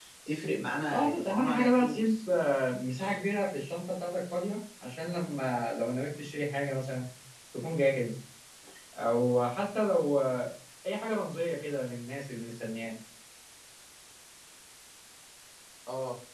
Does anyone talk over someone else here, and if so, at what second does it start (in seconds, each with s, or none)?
0.9 s